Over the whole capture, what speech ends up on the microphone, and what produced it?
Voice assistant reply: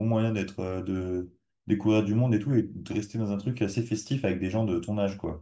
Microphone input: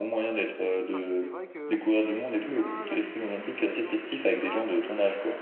both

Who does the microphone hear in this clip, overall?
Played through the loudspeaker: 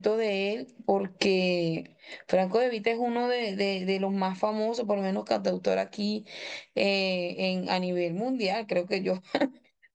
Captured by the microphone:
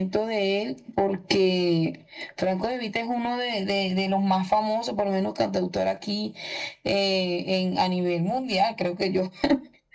echo only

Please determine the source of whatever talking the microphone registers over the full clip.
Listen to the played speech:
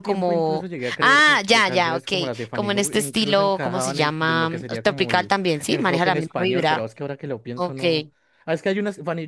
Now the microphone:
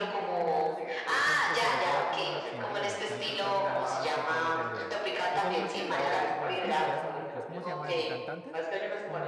both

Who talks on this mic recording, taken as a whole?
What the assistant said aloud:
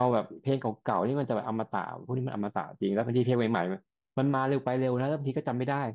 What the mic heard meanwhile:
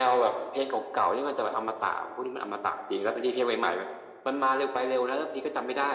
echo only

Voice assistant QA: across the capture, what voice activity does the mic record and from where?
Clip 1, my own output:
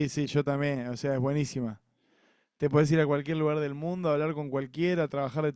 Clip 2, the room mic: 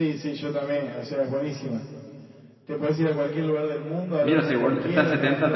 both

